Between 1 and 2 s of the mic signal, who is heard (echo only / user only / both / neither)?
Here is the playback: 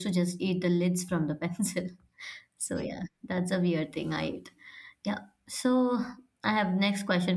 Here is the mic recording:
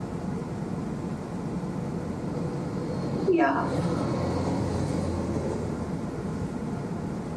neither